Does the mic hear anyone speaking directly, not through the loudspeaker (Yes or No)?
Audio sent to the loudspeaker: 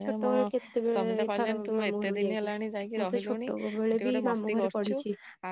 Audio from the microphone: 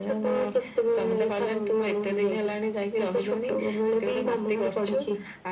No